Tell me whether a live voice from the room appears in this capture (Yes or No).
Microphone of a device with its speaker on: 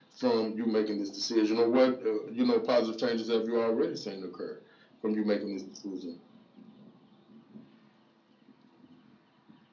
No